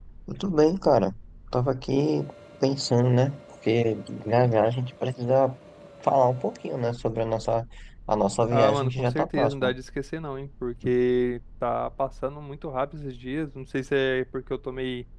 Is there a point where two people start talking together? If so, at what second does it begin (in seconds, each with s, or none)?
8.5 s